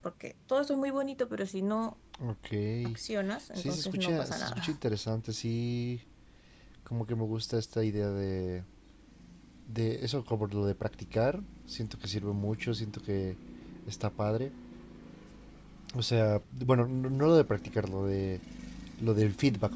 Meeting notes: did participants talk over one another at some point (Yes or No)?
Yes